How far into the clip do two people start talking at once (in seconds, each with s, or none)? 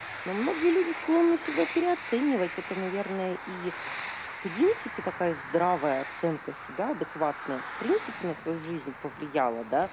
none